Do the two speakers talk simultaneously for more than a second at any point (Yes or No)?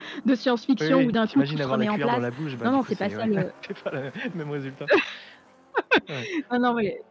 Yes